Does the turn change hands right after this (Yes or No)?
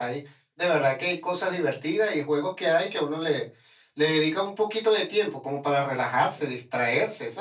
No